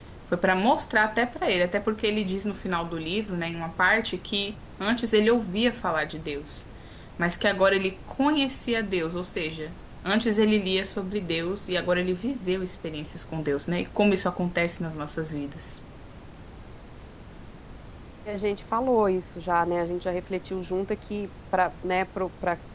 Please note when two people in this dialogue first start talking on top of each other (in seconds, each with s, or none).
none